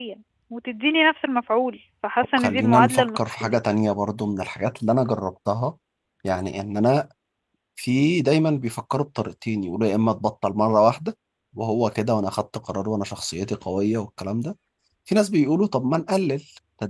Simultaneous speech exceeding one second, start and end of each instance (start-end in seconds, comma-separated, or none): 2.4-3.6